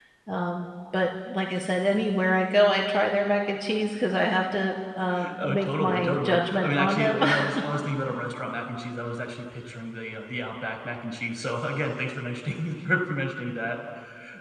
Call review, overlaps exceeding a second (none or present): present